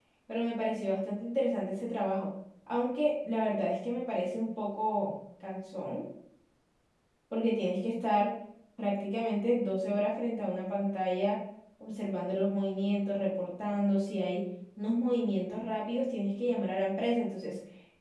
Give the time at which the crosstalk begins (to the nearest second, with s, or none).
none